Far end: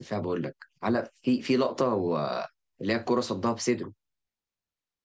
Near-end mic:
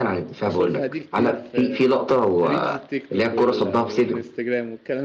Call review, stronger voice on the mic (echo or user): echo